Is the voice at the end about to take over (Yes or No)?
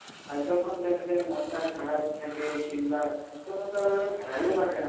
No